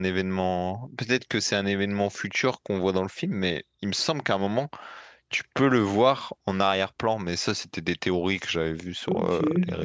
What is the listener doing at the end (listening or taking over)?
taking over